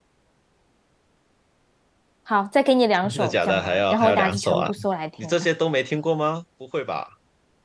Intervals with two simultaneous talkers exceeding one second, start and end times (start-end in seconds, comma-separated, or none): 3.0-4.7